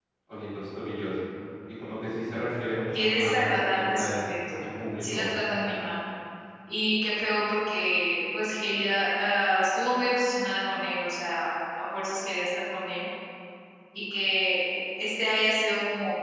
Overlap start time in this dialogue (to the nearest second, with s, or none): 3 s